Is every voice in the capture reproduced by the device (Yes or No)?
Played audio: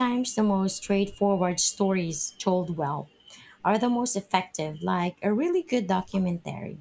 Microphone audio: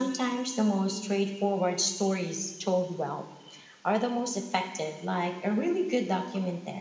Yes